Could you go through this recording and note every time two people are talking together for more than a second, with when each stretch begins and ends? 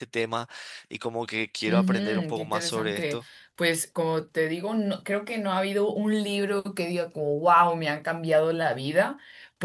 1.7-3.2

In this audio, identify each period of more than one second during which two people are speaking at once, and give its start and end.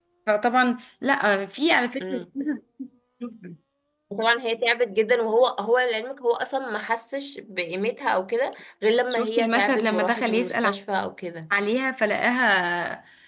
9.1-10.7

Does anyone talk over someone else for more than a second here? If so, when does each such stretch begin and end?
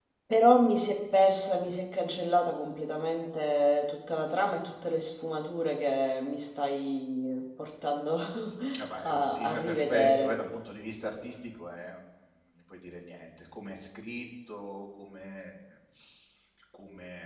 9.0-10.4

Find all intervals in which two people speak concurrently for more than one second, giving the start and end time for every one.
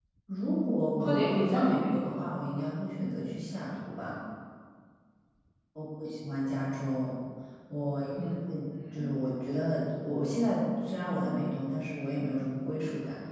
1.0-2.3

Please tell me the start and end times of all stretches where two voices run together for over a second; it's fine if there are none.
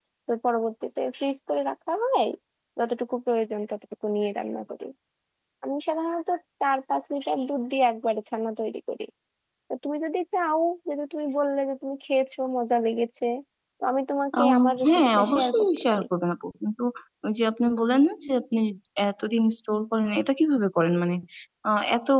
14.4-16.1

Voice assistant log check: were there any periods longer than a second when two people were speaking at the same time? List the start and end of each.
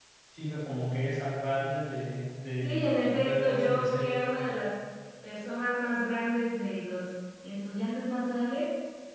2.6-4.1

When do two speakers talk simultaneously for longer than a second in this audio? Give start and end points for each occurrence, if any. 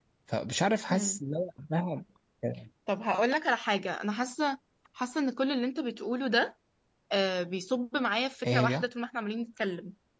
none

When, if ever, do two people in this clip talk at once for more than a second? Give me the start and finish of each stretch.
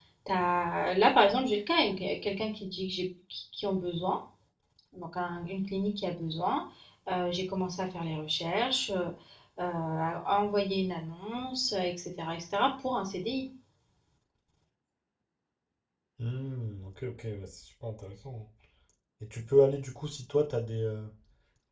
none

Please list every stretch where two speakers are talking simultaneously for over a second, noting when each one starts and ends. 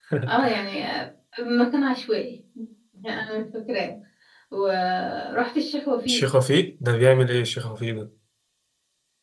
none

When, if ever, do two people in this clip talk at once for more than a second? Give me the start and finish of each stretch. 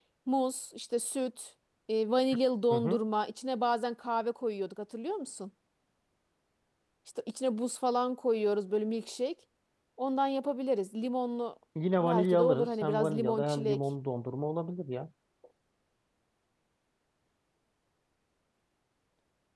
12.0-13.8

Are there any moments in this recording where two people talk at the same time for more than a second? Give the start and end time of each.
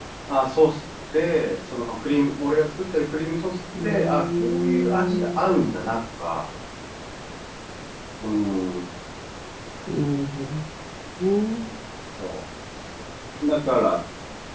3.8-5.4

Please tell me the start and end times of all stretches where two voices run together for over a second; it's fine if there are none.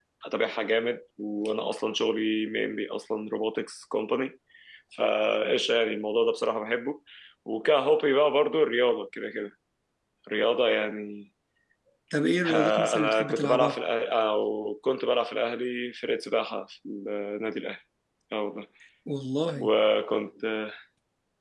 12.4-13.8

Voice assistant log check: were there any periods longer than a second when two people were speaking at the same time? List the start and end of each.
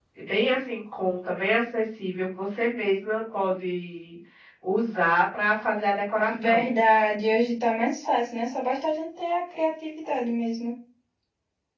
none

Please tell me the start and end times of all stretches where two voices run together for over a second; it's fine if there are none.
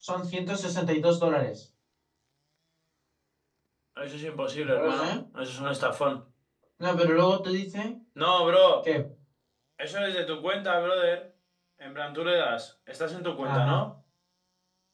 none

